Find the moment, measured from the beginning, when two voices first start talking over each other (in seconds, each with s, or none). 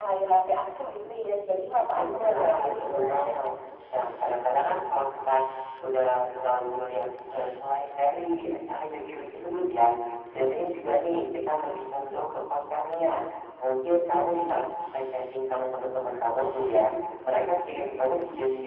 1.9 s